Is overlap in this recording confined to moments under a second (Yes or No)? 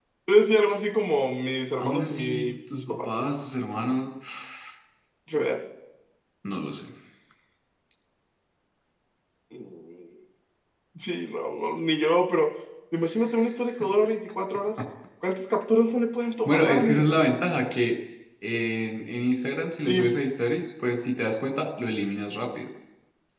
No